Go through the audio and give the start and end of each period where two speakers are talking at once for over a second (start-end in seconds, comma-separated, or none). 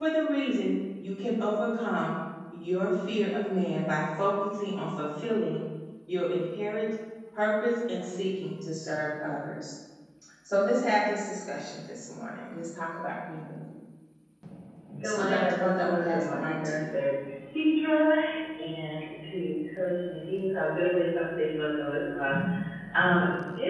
15.0-16.8